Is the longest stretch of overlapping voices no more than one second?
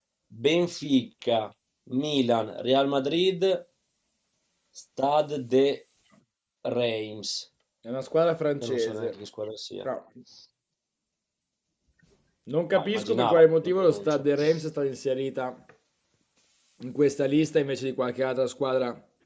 No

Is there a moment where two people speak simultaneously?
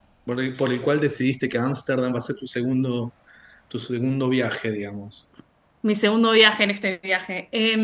No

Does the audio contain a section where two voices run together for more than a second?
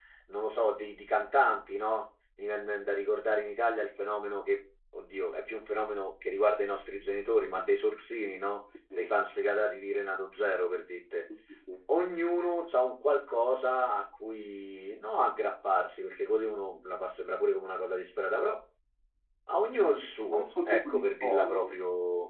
Yes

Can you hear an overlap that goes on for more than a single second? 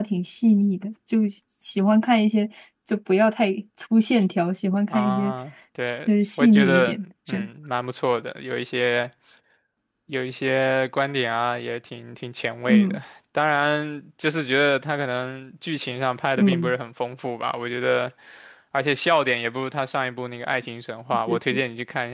Yes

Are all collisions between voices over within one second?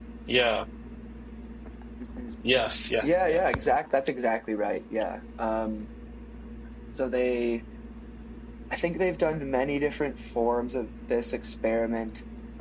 Yes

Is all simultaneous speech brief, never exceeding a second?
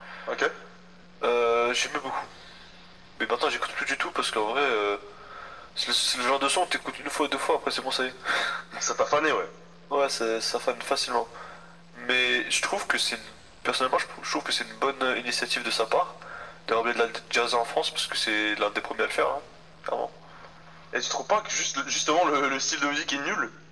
Yes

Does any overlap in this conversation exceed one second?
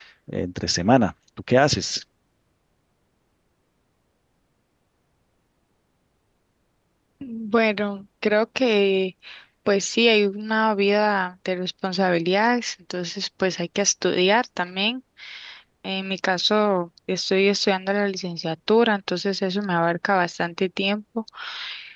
No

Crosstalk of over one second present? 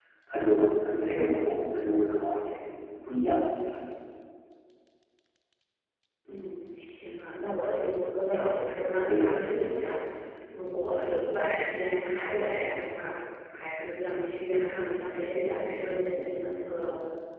No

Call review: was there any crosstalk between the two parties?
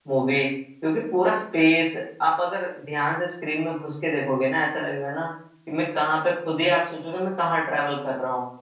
No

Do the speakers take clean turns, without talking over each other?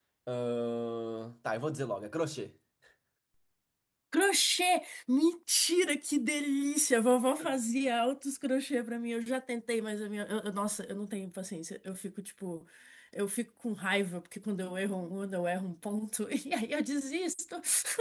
Yes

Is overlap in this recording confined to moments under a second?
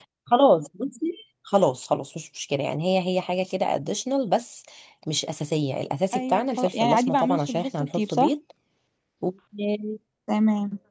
No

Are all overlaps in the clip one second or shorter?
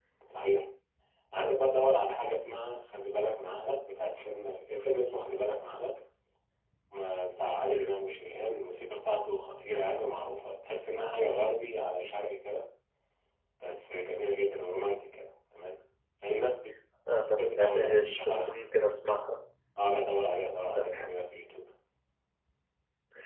No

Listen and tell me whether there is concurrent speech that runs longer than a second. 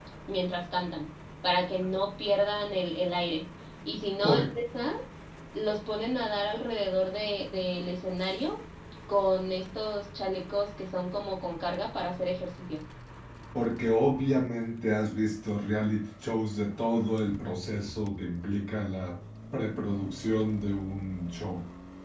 No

